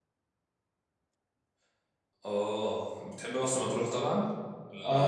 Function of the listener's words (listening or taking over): taking over